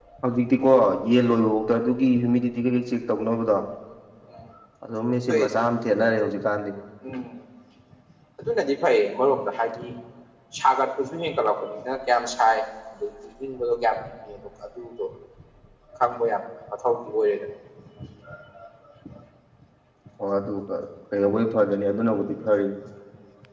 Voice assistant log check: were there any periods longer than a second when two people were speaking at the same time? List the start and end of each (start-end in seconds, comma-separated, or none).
none